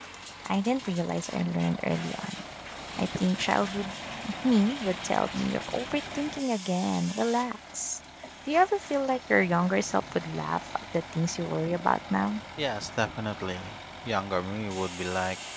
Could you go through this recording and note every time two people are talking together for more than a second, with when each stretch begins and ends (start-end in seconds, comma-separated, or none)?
none